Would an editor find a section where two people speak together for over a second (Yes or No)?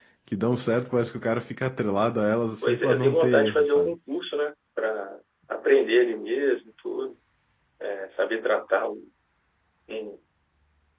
Yes